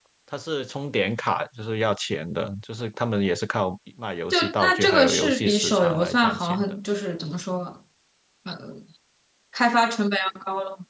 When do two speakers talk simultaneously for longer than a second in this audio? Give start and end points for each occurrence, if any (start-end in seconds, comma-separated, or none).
4.3-6.8